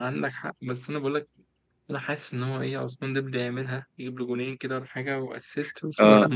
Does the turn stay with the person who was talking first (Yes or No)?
No